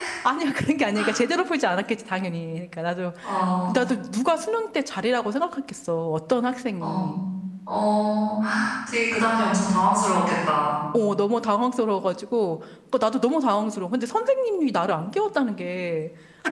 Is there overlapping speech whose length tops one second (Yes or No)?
No